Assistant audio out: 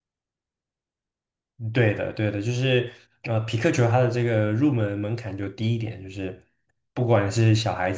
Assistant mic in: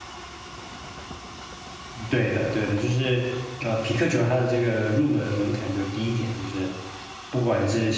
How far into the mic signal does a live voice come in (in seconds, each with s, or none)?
none